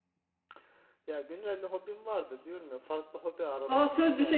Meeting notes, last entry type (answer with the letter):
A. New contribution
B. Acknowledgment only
A